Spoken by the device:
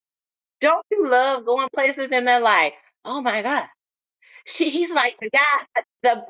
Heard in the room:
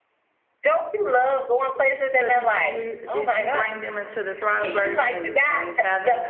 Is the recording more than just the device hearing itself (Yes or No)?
Yes